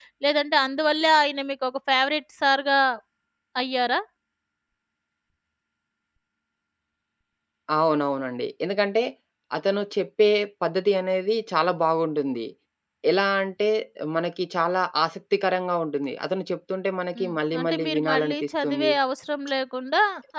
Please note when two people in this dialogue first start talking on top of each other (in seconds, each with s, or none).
17.2 s